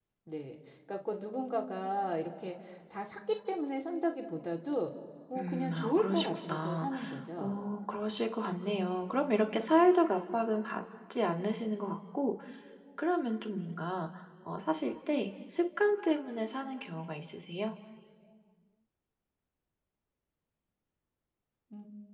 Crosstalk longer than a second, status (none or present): present